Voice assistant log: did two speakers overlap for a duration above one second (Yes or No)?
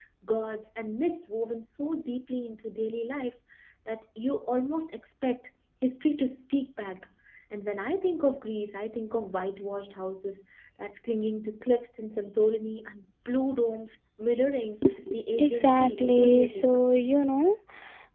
Yes